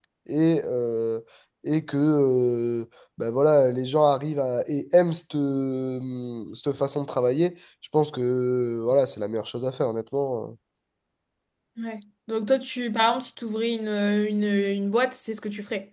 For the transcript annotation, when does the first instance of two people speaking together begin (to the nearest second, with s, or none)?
none